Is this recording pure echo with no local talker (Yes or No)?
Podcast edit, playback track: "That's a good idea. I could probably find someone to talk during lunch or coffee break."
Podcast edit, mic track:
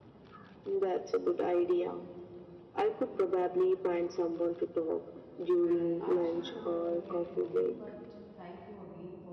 No